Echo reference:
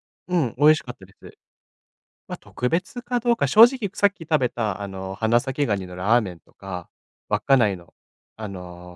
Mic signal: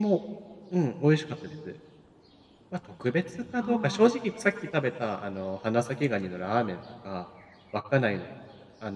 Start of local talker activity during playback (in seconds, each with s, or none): 3.6 s